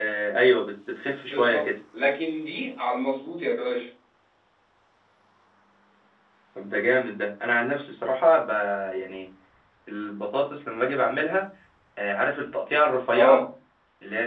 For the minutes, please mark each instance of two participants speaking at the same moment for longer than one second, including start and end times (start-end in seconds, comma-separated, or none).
none